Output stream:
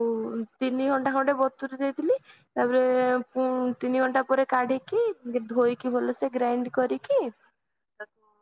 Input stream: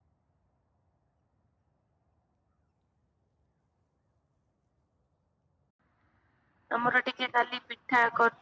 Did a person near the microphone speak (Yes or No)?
Yes